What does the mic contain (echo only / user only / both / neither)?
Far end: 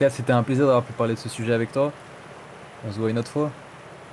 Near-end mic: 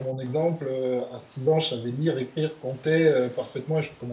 user only